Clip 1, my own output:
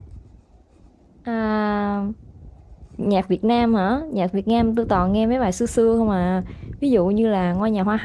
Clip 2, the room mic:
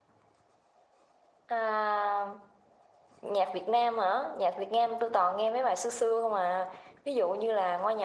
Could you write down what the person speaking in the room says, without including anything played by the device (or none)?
none